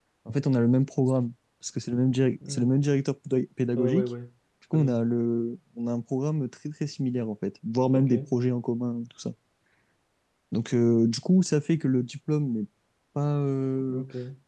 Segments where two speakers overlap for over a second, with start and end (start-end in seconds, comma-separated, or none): none